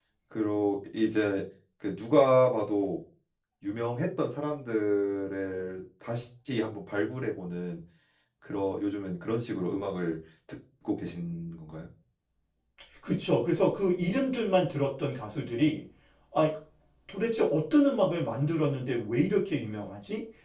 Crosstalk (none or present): none